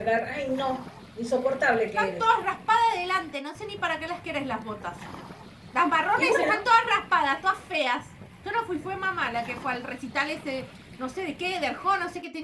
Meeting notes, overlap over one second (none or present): none